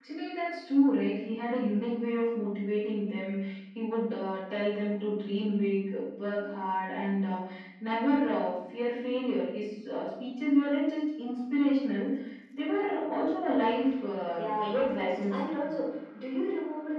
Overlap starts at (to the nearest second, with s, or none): 14 s